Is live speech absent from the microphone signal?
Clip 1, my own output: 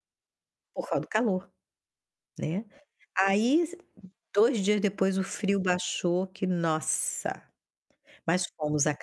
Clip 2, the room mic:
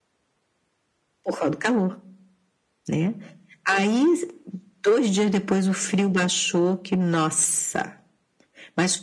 Yes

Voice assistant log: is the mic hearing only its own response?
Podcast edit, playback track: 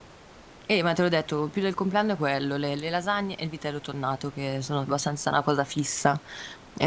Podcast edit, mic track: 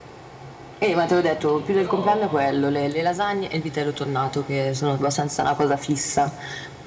No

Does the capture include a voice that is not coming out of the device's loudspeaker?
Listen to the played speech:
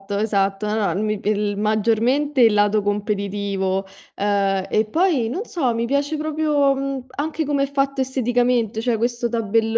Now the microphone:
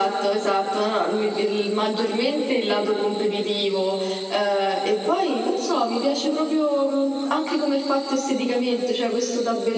No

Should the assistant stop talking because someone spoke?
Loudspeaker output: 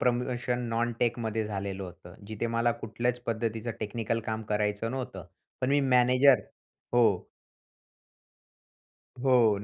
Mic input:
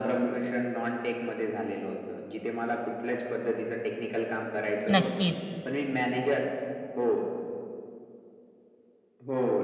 Yes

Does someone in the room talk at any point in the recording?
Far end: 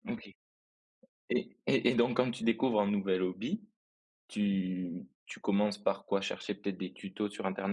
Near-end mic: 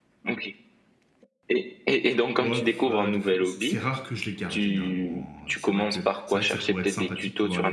Yes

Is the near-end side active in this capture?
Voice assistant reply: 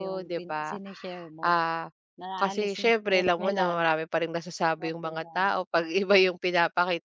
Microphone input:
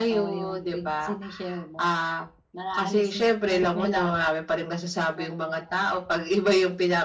No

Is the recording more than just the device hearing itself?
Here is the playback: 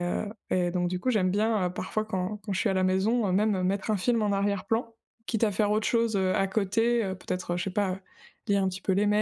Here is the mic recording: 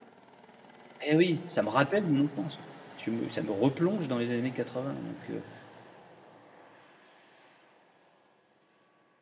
Yes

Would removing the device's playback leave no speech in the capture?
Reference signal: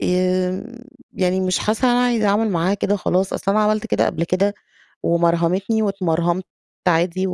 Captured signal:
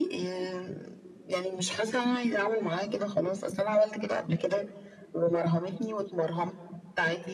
Yes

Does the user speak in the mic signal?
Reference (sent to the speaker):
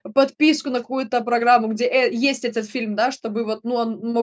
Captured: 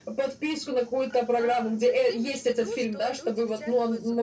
Yes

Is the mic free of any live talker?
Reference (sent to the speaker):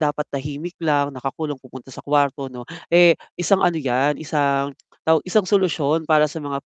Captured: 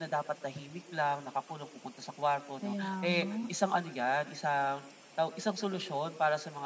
No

